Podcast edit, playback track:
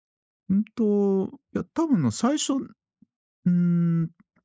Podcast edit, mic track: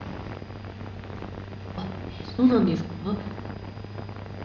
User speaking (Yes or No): Yes